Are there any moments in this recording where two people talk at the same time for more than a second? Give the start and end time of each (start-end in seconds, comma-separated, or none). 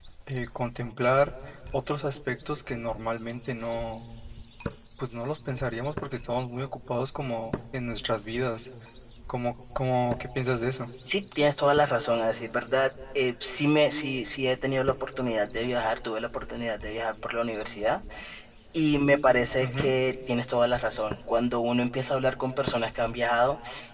none